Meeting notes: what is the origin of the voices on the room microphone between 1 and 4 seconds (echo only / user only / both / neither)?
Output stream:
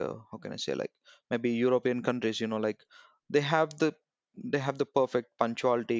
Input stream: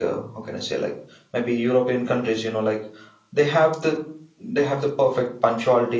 echo only